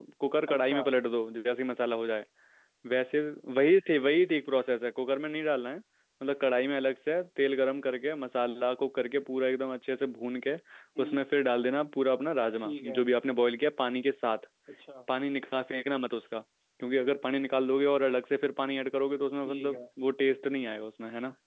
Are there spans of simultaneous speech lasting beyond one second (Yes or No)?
No